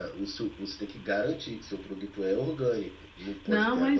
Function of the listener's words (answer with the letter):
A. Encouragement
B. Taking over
B